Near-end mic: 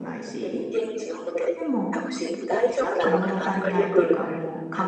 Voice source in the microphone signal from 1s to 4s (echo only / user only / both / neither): both